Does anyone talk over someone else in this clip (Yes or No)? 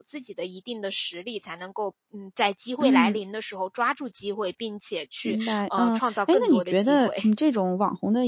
Yes